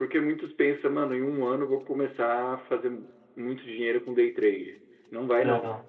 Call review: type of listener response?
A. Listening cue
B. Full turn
A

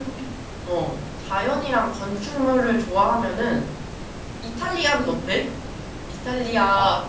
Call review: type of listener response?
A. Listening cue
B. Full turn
A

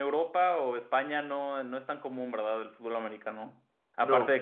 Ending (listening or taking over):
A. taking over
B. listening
B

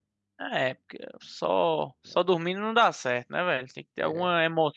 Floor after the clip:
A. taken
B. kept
B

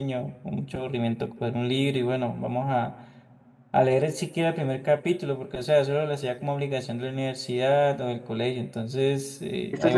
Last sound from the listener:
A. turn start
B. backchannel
B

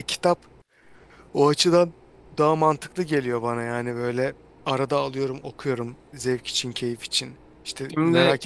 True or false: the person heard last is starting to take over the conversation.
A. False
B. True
A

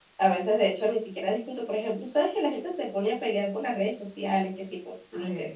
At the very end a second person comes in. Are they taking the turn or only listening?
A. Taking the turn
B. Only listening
B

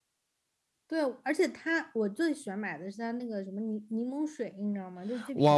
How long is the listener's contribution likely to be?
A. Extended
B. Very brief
A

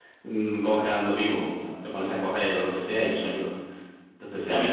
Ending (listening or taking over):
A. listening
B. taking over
B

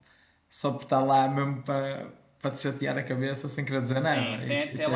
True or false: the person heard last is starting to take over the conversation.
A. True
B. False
A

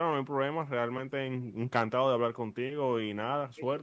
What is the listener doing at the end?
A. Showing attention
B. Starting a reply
B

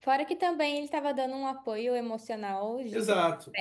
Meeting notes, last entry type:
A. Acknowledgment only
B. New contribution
B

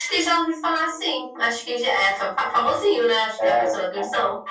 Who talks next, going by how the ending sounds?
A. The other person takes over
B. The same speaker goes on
A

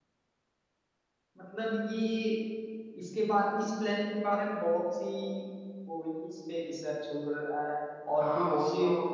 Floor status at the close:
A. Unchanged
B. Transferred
B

